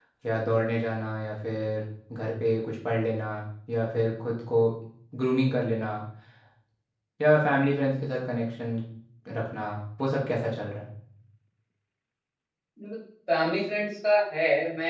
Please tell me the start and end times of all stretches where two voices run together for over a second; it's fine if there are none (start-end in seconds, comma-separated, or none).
none